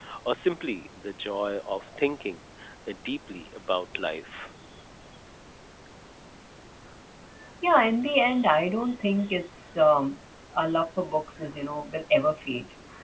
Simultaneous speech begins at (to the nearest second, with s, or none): none